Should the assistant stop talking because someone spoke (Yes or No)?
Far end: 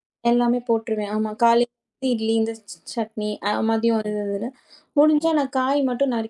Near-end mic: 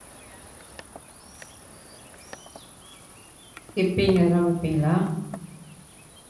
Yes